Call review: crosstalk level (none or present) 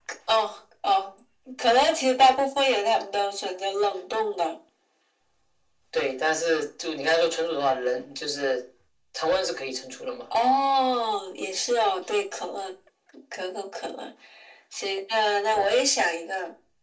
none